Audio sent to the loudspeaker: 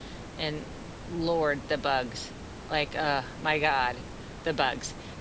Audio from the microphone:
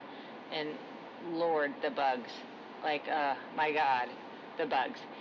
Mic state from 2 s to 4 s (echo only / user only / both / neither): echo only